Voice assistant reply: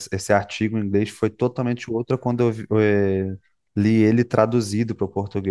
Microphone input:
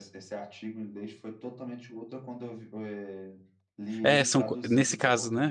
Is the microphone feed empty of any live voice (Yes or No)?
No